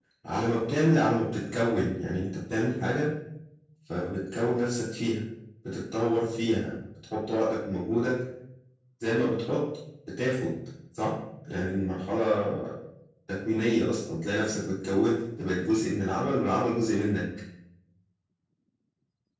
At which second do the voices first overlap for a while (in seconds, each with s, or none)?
none